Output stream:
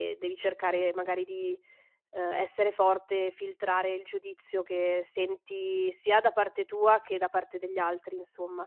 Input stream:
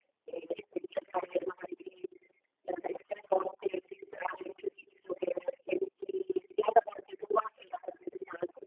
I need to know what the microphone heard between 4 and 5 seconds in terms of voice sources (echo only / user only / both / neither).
echo only